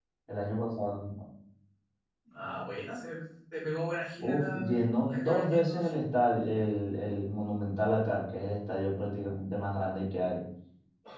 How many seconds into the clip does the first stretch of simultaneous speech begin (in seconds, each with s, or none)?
4.2 s